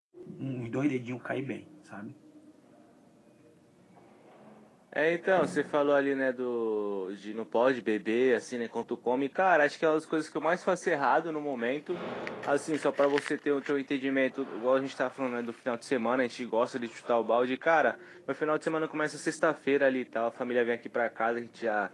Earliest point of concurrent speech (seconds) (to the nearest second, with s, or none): none